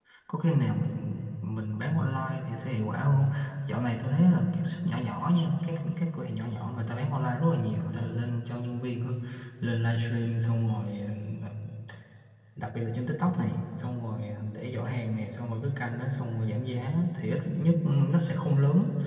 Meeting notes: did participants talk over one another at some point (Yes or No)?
No